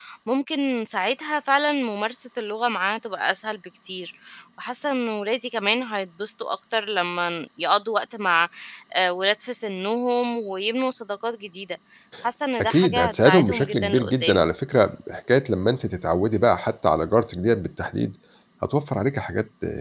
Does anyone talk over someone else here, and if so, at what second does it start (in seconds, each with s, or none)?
12.6 s